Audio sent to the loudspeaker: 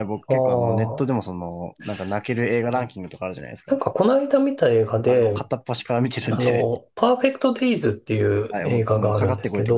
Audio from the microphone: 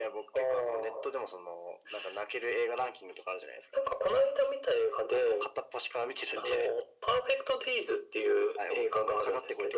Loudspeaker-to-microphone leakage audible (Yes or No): Yes